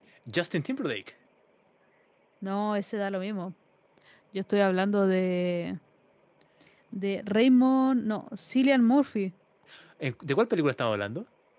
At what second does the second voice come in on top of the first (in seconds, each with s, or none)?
none